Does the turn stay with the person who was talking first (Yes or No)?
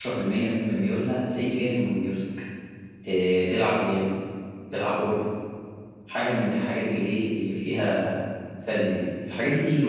Yes